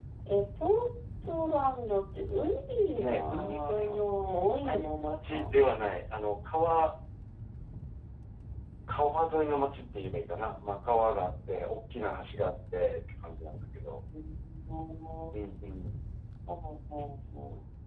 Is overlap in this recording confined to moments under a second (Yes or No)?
No